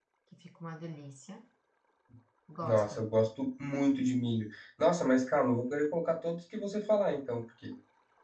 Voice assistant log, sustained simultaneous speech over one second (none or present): none